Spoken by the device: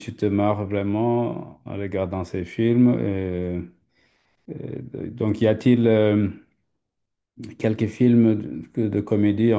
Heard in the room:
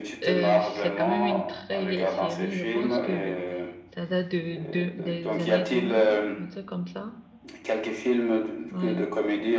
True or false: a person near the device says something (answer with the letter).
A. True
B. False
A